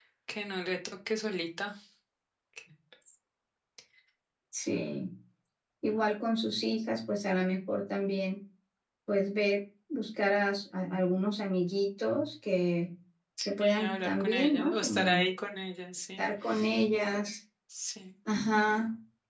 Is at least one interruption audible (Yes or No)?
Yes